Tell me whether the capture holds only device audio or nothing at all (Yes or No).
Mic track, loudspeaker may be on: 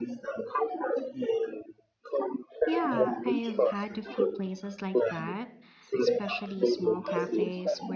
No